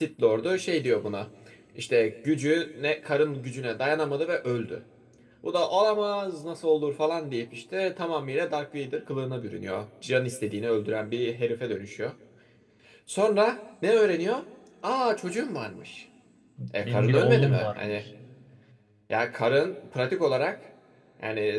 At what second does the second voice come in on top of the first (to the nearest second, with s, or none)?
17 s